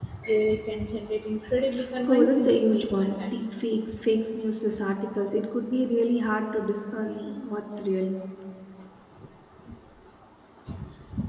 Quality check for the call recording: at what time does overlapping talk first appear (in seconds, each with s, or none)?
2.1 s